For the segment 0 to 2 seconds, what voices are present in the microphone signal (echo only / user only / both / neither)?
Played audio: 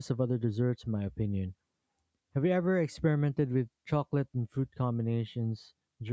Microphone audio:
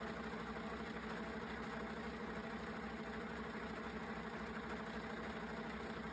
neither